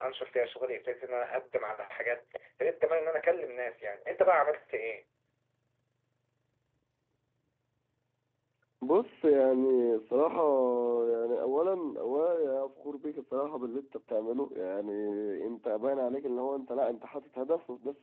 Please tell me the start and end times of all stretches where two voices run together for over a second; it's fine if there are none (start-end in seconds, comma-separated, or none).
none